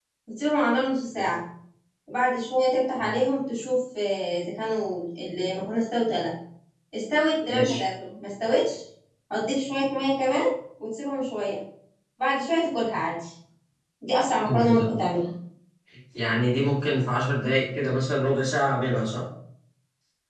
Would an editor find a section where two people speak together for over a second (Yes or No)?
No